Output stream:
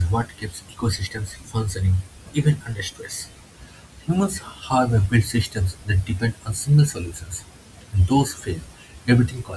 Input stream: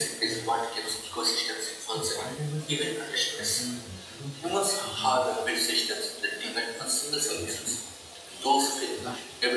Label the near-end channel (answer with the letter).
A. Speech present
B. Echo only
A